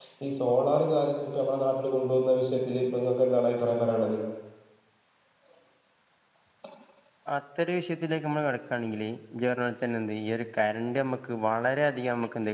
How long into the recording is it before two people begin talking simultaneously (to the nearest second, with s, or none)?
none